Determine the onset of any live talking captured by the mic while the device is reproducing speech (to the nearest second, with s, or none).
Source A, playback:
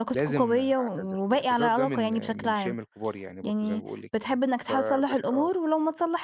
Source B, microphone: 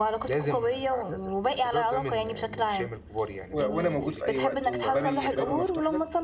4 s